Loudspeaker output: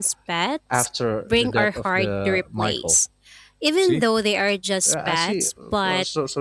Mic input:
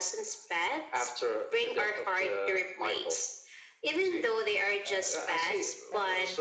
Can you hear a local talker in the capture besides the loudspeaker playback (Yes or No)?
Yes